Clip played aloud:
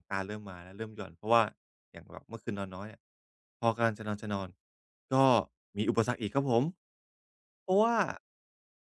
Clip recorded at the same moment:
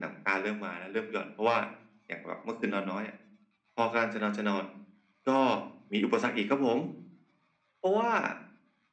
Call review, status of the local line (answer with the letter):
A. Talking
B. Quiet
B